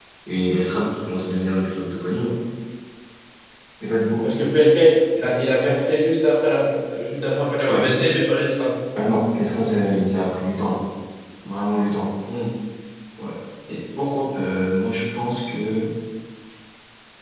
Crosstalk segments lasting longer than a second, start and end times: none

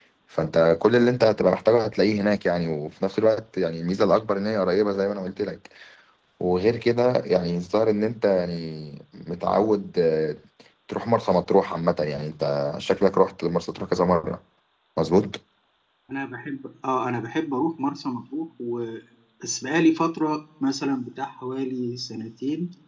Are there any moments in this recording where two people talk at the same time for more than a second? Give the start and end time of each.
none

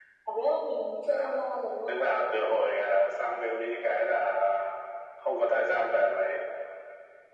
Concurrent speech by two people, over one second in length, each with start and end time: none

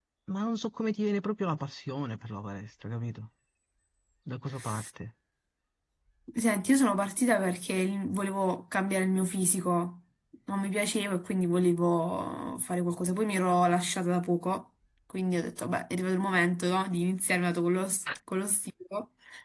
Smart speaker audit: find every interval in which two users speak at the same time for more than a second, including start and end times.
none

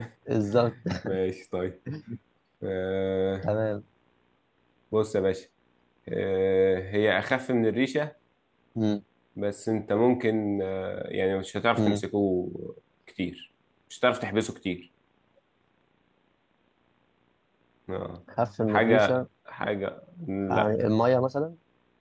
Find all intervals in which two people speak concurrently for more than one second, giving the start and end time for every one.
none

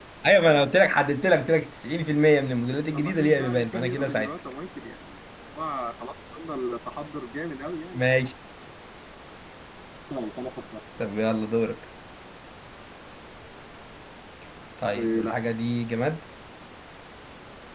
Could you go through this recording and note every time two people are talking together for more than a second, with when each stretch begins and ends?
2.9-4.4

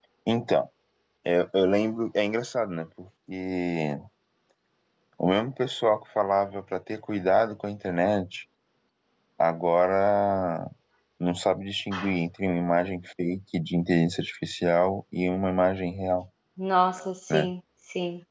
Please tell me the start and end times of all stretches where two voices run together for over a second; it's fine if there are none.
none

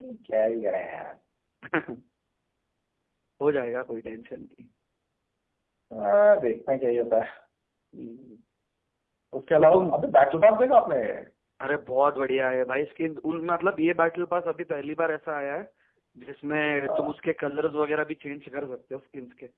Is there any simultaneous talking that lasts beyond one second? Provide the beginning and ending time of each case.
none

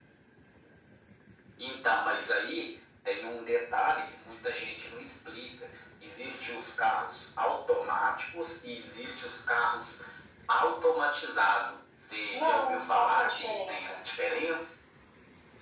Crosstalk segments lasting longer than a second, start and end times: 12.3-14.0

